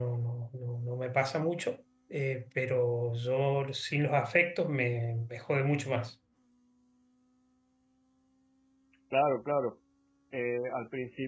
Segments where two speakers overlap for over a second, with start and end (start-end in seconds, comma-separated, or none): none